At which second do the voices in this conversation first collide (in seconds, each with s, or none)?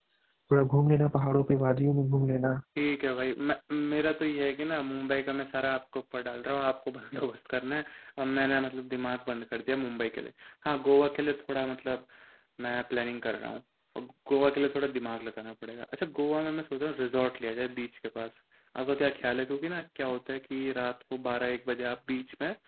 none